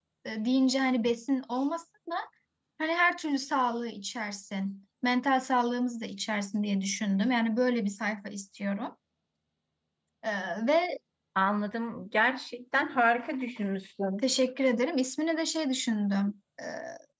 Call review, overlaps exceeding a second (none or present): none